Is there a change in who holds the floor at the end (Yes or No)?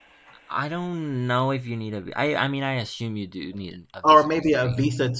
Yes